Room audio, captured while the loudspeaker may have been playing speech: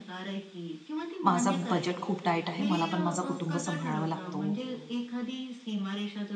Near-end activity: present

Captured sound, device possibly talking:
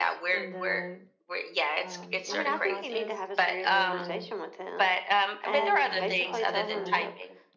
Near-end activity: present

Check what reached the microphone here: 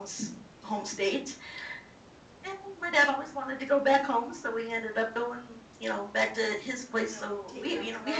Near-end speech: present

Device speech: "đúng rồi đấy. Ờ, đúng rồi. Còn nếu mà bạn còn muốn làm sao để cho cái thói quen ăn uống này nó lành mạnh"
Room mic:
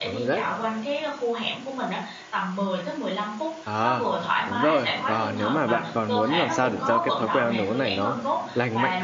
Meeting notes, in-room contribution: present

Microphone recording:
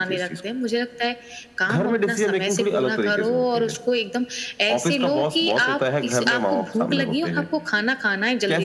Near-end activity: none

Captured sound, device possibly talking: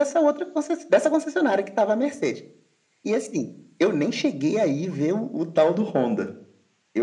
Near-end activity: none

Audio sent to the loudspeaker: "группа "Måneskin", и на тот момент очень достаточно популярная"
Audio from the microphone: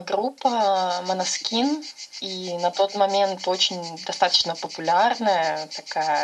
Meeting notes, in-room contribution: none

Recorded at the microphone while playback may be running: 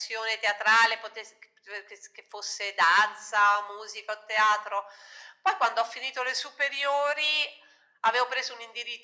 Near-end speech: none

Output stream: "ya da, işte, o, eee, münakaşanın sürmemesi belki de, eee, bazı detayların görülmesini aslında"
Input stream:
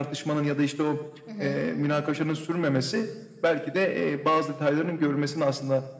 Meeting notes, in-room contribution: present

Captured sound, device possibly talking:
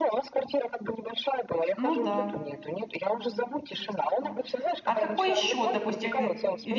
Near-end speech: present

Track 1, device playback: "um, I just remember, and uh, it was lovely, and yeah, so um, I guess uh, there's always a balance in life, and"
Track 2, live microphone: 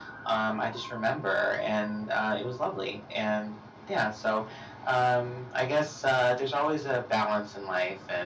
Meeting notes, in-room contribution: none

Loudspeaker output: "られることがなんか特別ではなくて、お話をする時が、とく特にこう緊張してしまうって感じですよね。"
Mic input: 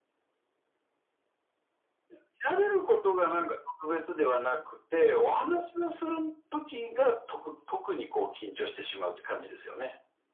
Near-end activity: none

